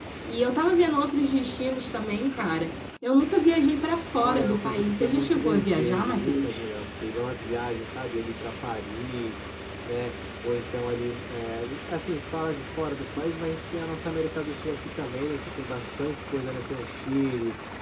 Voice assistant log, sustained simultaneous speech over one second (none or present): present